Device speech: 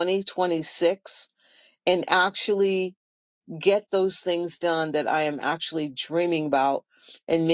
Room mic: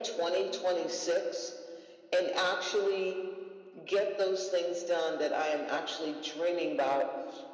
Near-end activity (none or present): none